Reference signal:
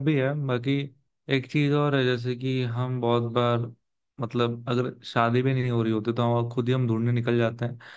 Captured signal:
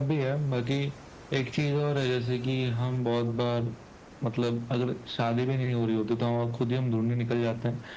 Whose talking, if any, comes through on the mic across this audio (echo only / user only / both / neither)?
echo only